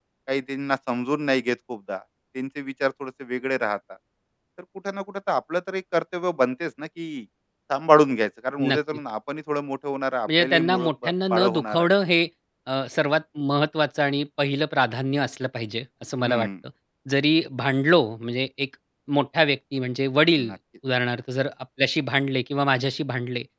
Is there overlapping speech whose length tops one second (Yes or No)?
Yes